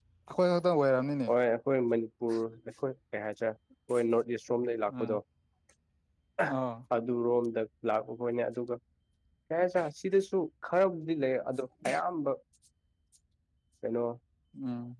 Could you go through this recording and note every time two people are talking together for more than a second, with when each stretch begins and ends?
none

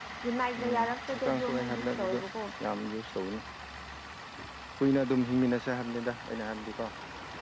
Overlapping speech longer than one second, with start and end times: 0.6-2.2

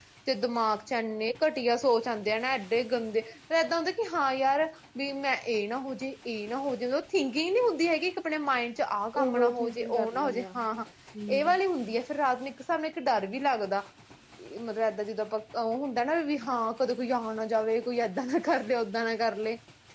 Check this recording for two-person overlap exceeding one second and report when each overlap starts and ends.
9.2-10.6

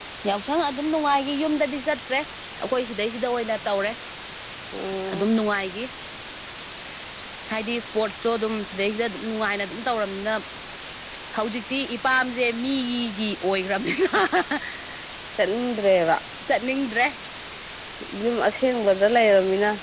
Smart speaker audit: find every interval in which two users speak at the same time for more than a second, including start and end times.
none

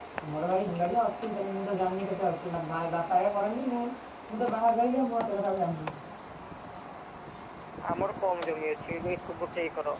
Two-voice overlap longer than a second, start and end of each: none

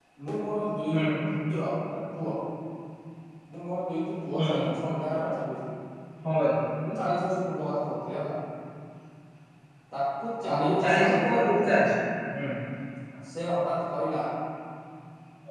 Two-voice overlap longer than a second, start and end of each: 10.5-11.9

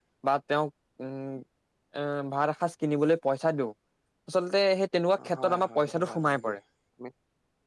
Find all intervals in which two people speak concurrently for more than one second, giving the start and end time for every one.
5.2-6.5

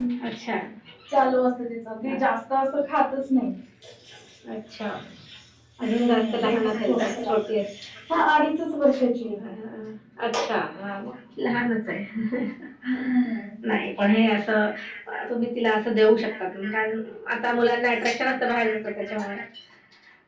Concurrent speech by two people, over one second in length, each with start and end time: 5.8-7.3

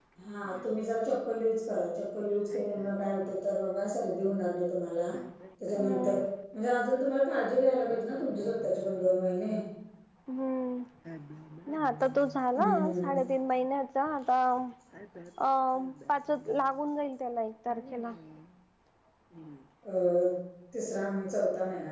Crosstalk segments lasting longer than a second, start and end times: none

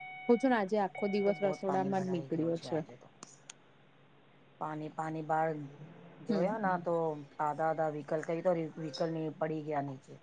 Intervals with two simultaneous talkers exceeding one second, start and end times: 1.3-2.8

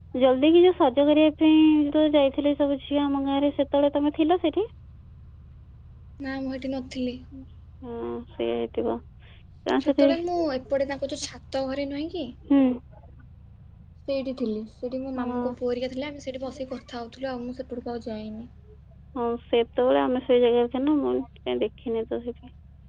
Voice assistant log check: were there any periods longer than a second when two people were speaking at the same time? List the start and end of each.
none

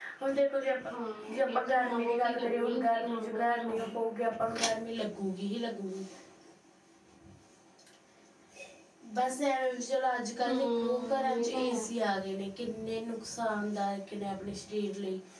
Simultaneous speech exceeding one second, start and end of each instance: 1.3-3.9, 10.5-11.9

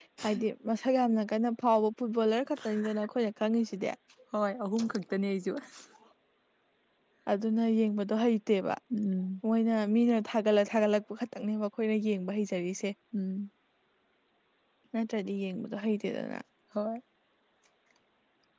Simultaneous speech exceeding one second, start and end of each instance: none

